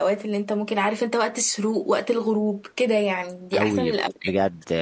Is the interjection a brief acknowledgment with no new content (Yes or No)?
No